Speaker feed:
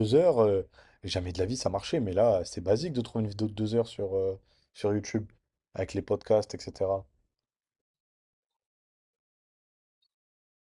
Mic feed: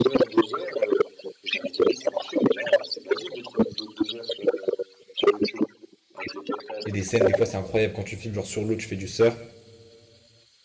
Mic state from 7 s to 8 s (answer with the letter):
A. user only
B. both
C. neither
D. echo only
B